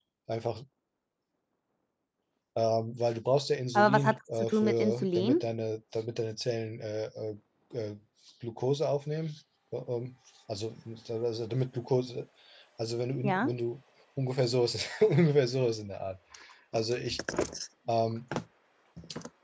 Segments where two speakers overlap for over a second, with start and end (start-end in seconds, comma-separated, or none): 3.7-5.4